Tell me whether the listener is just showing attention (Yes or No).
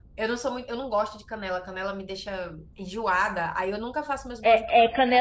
No